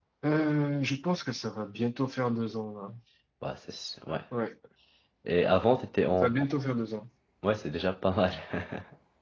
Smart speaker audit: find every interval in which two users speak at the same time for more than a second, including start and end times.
none

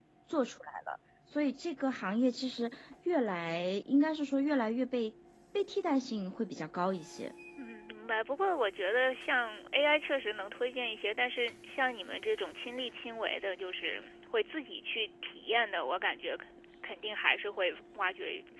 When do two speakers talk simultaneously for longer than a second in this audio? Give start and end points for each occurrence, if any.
none

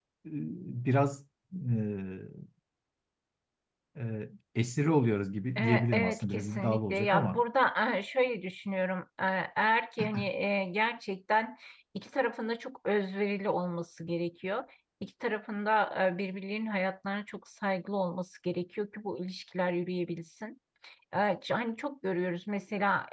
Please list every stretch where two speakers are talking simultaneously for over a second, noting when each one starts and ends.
5.6-7.4

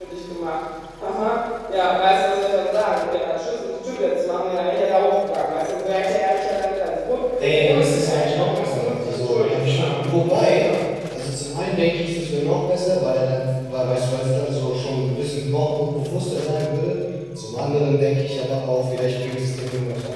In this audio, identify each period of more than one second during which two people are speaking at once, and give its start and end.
7.4-10.0

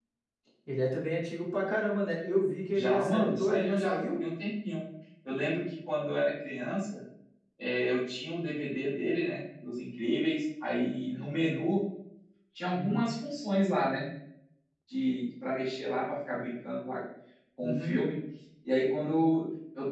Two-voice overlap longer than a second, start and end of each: 2.7-4.0

